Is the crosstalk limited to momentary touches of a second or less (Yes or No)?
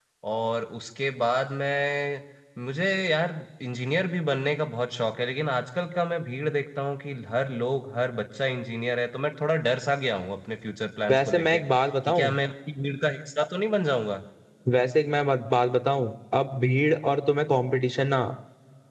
Yes